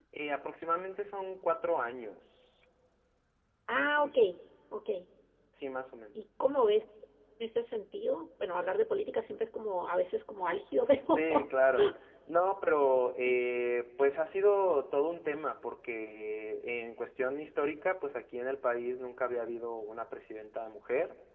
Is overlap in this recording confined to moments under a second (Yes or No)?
Yes